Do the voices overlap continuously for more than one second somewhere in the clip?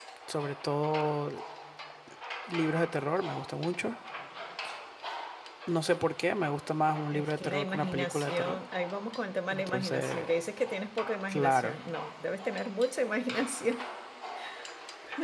Yes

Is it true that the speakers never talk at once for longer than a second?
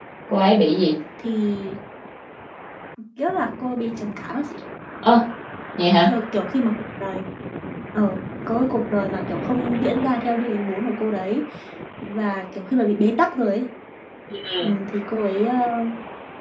Yes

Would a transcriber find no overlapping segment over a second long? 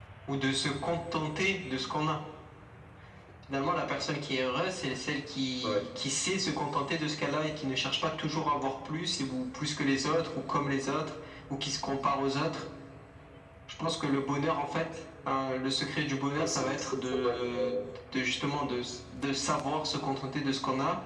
No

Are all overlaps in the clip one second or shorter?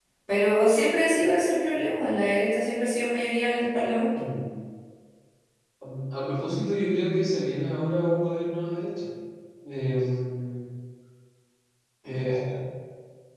Yes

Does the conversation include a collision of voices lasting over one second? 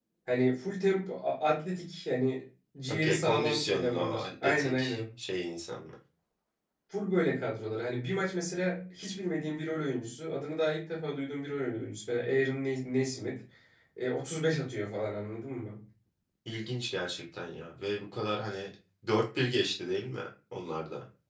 Yes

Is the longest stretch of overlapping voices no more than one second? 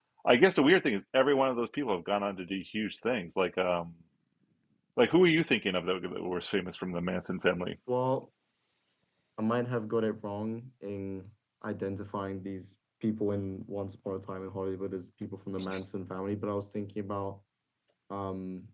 Yes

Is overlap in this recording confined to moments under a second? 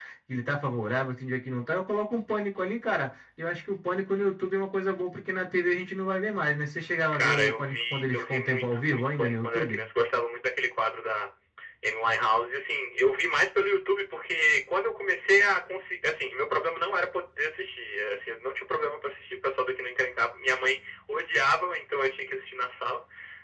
No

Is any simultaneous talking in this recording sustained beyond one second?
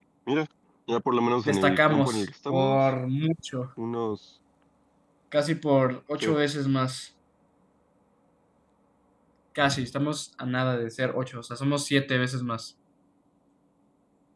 Yes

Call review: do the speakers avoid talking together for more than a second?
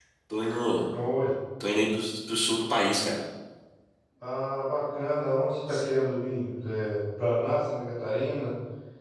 Yes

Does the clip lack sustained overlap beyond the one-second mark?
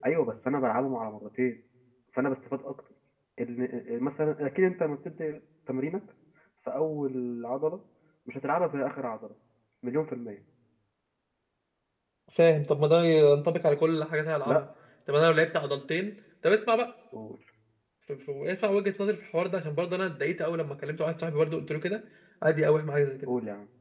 Yes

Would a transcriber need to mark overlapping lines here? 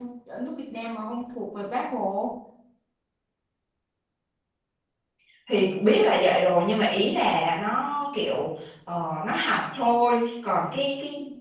No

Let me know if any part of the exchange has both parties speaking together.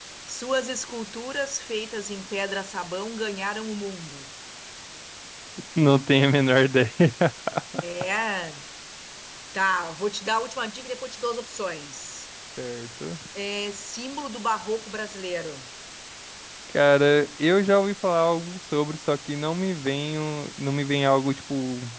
No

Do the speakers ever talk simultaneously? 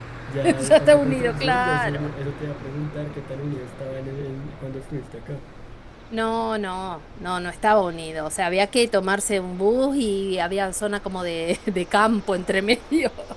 Yes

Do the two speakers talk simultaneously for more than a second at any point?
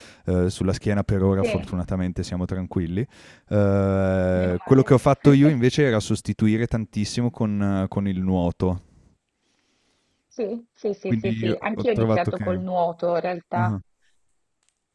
Yes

